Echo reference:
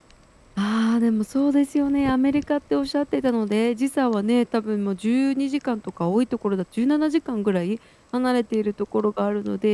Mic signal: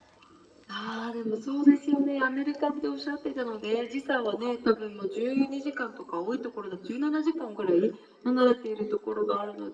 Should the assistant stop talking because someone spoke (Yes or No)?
No